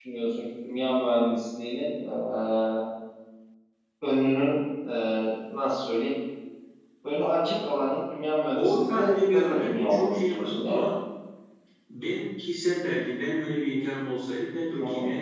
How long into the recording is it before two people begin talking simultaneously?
8.5 s

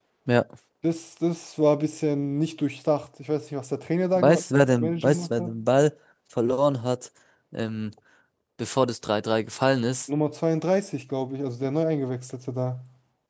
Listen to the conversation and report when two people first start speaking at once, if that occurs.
4.2 s

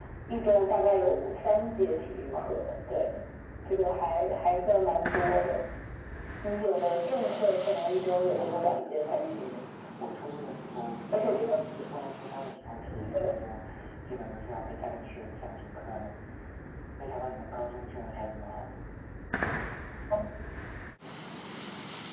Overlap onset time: 8.4 s

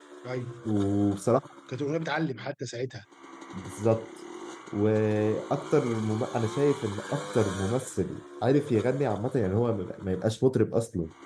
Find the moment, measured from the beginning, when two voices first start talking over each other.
none

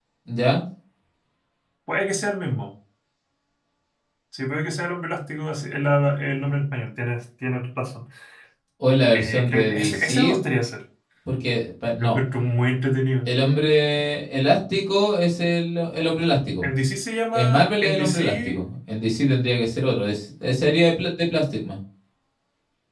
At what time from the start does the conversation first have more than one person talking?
9.1 s

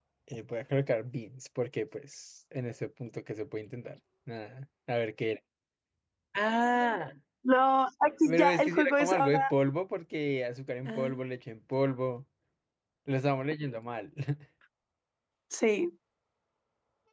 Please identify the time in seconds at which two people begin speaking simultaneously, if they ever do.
8.2 s

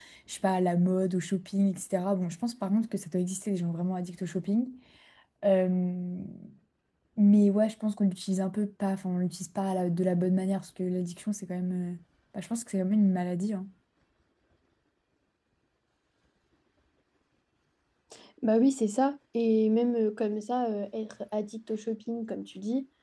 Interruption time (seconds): none

